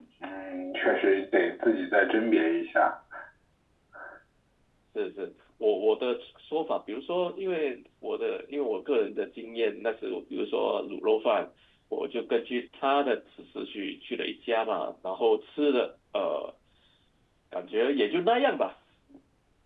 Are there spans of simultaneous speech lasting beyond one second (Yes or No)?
No